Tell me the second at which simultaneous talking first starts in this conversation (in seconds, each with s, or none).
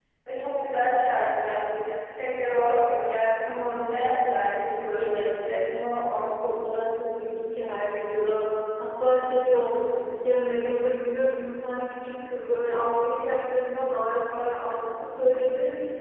3.5 s